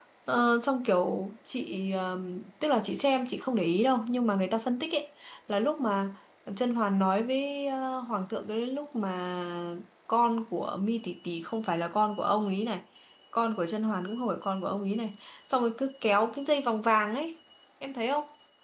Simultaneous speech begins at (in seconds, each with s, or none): none